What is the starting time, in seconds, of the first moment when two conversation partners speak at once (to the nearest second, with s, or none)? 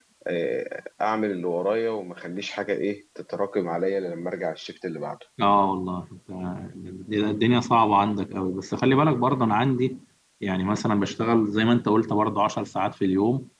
none